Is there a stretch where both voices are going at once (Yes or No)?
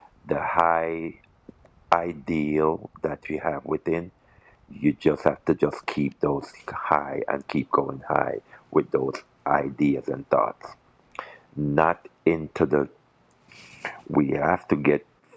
No